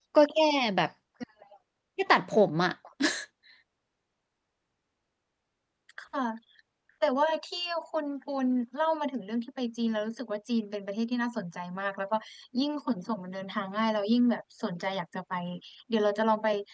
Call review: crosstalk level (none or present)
none